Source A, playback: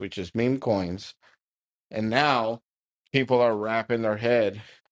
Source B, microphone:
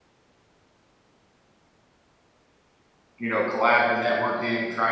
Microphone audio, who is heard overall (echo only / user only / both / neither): user only